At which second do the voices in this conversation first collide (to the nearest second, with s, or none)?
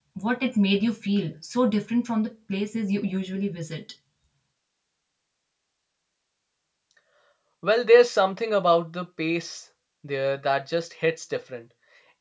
none